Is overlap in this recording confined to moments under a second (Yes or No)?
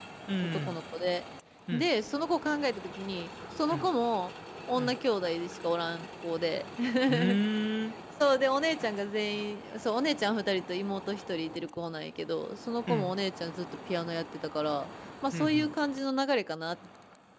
Yes